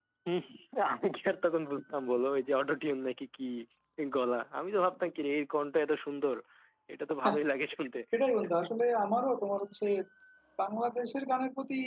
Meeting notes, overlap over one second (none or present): none